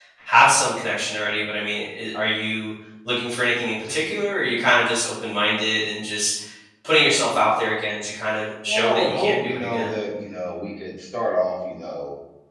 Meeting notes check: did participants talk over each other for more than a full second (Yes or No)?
Yes